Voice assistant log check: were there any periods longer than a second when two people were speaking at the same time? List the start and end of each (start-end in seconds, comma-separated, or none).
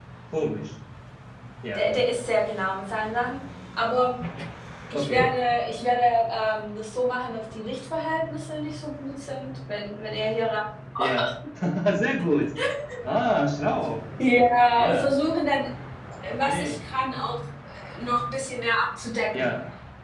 none